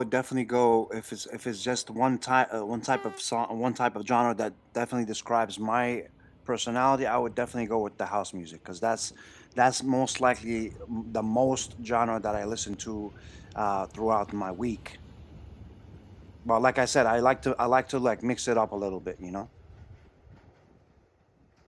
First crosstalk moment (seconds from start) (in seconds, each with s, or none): none